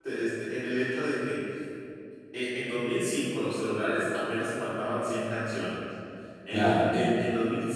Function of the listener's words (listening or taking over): listening